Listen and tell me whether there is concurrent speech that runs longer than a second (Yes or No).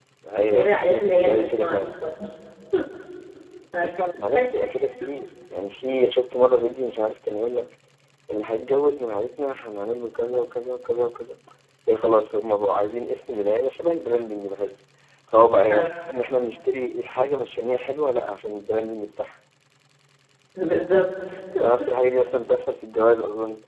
Yes